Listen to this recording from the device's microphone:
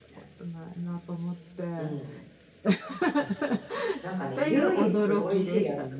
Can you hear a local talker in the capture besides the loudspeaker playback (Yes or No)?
Yes